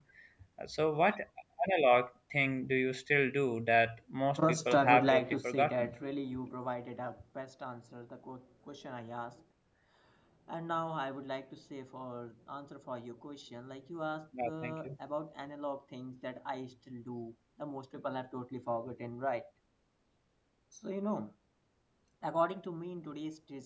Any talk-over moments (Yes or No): Yes